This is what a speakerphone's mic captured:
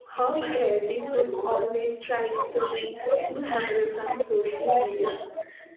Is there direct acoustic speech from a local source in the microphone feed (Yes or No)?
Yes